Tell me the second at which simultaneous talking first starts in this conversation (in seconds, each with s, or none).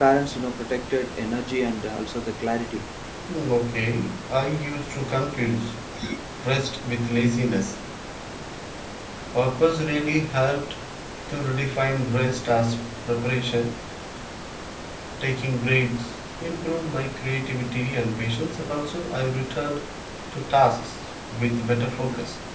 none